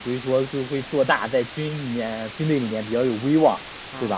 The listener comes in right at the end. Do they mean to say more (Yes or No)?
No